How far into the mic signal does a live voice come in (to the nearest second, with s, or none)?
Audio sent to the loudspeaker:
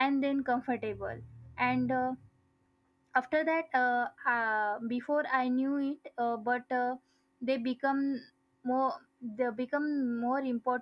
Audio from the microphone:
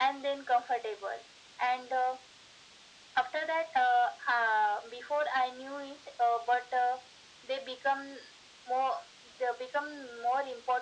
none